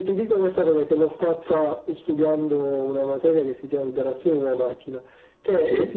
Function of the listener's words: listening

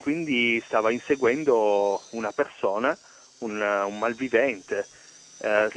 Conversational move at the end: listening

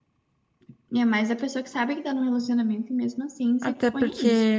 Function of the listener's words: taking over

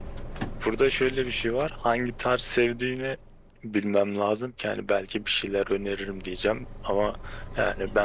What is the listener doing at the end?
taking over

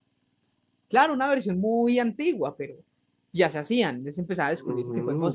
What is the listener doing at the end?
taking over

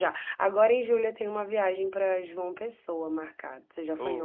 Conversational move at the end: taking over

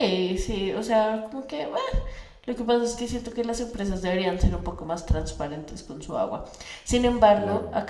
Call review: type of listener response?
listening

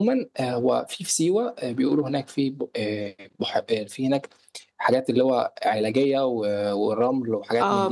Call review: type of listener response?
taking over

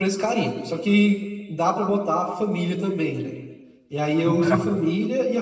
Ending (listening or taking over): listening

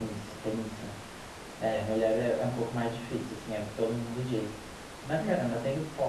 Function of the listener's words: listening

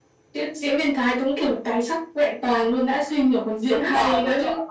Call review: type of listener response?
taking over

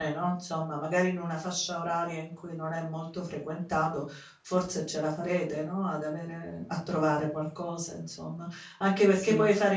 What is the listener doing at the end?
listening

